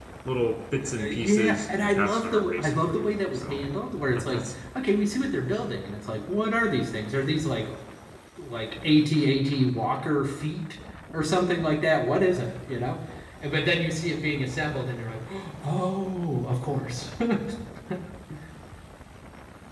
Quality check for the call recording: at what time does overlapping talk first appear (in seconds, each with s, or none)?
0.8 s